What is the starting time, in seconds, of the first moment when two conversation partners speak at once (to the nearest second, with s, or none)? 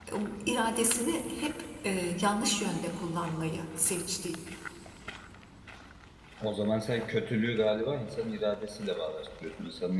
none